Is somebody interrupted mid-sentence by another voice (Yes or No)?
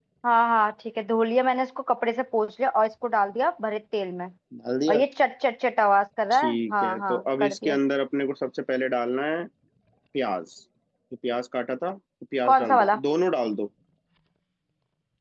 Yes